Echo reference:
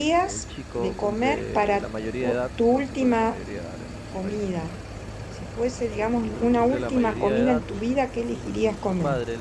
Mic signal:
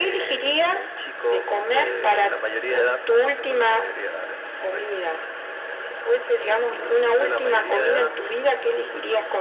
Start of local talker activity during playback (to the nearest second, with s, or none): none